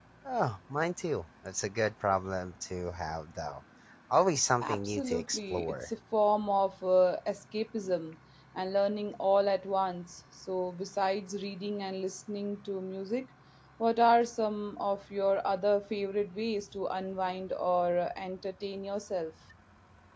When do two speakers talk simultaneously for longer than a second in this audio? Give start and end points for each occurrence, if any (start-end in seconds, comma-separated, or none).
4.6-5.9